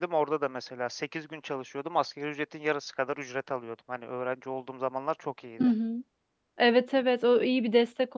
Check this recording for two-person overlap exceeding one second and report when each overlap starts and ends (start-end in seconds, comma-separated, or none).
none